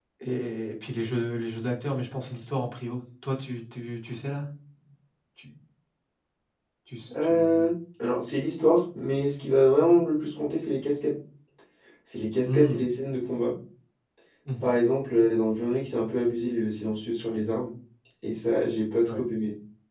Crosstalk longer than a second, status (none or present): none